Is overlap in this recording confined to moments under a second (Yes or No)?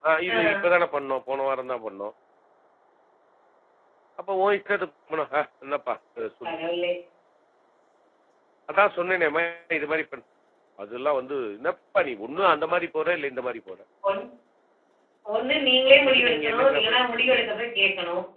No